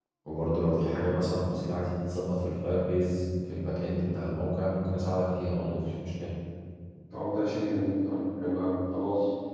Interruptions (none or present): none